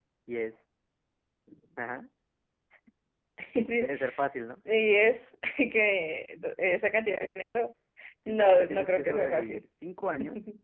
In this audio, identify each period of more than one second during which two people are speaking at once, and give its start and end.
8.3-9.6

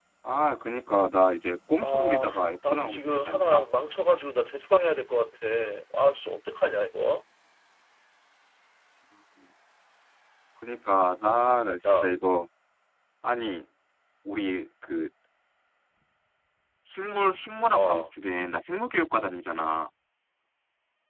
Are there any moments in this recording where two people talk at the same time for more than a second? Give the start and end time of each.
1.8-3.6

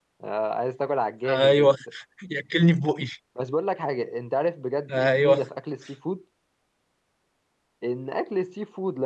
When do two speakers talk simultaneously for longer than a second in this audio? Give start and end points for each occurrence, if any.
none

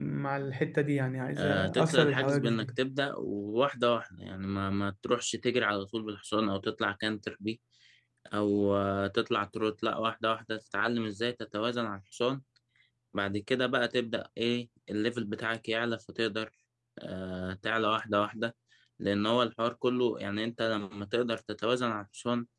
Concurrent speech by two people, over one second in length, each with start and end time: 1.4-2.7

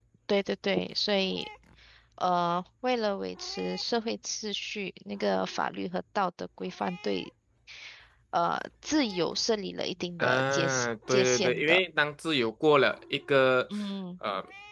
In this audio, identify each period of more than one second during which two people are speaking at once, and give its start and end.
10.2-11.8

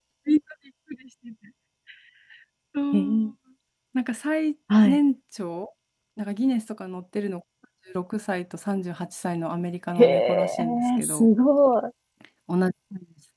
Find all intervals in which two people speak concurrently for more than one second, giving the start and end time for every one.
10.0-11.3

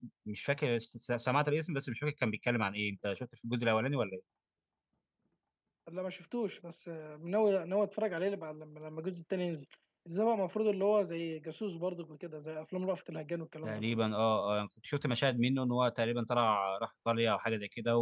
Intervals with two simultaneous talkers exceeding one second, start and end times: none

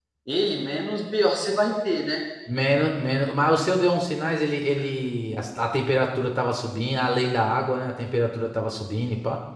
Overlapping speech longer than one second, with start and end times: none

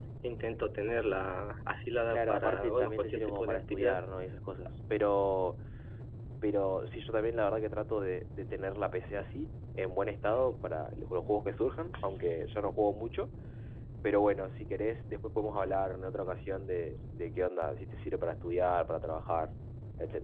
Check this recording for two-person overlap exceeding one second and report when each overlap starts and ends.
2.1-4.0

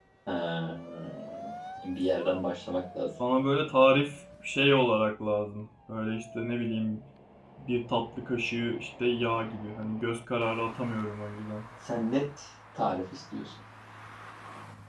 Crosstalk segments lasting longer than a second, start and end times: none

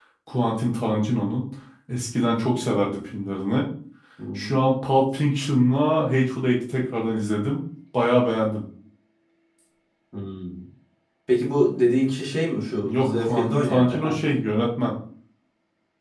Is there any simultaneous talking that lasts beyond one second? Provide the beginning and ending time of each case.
12.8-14.2

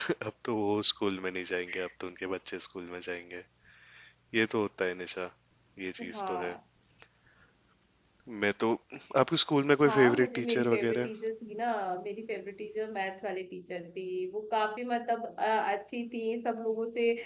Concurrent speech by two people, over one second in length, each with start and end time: 9.9-11.1

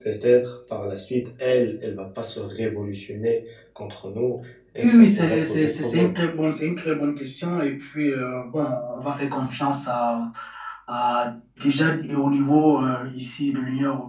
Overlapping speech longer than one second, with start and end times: 4.8-6.2

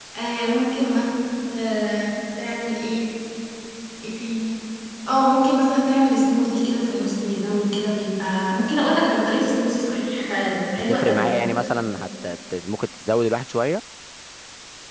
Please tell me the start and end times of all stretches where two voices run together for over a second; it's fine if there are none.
none

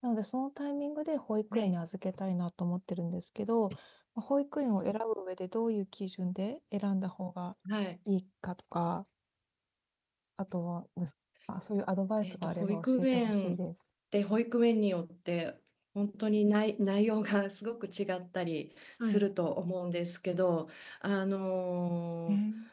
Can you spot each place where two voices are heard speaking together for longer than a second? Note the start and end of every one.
12.2-13.6

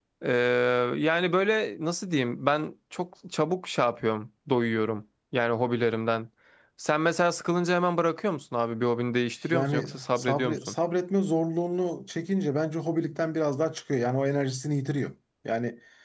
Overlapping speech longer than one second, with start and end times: 9.5-10.8

